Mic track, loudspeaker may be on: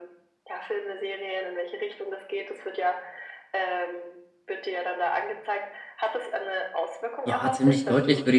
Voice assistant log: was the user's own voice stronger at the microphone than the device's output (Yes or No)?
Yes